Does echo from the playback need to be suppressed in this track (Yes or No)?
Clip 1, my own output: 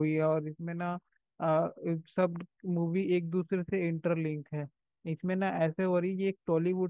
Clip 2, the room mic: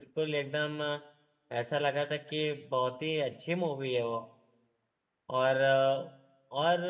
No